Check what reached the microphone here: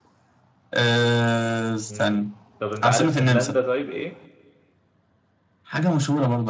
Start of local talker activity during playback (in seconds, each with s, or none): 1.9 s